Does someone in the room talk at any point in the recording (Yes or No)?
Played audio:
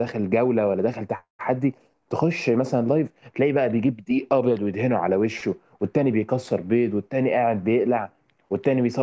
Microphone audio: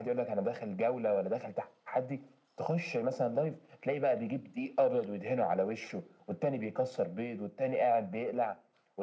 No